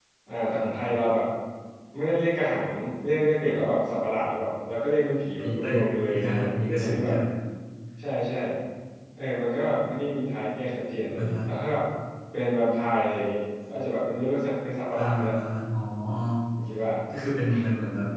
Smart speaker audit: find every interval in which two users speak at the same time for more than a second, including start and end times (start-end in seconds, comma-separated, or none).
5.4-7.2